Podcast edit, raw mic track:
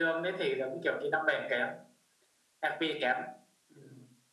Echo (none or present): present